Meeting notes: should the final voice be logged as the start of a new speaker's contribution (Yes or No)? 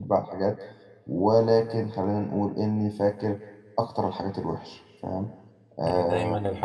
Yes